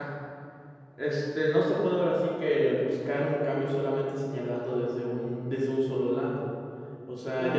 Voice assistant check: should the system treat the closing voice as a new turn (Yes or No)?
No